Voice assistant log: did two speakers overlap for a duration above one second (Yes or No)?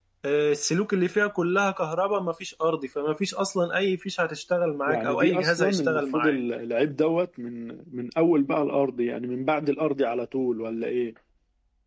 Yes